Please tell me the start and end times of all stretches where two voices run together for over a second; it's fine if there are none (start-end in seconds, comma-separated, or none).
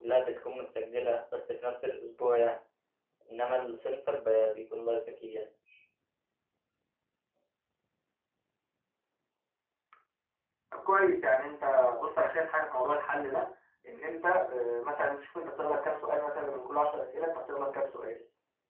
none